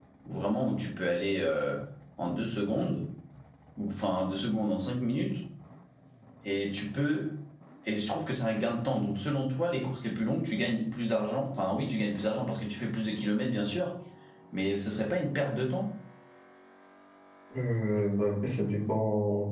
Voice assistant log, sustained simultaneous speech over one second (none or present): none